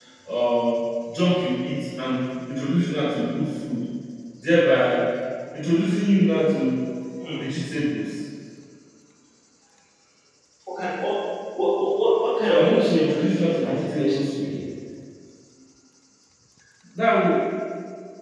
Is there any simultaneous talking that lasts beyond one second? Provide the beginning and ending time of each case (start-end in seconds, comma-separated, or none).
12.4-14.6